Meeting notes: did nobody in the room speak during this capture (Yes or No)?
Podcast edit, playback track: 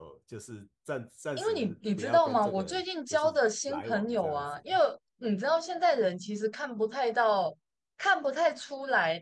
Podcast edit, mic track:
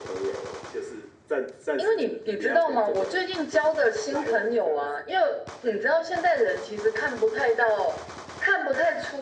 Yes